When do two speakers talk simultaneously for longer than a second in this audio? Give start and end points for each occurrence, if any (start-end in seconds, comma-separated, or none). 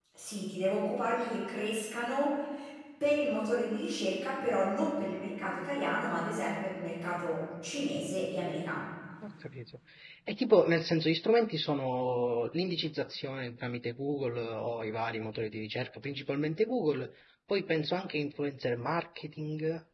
none